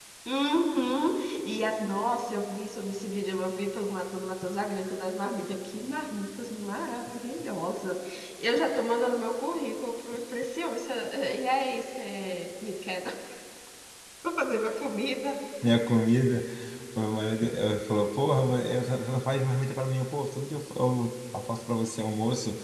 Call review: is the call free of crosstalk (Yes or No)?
Yes